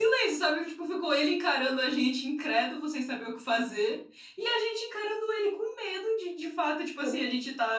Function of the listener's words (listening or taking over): listening